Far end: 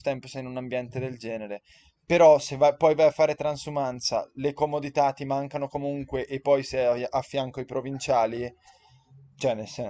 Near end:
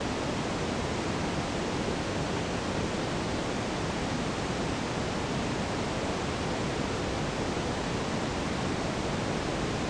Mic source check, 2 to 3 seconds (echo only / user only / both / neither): neither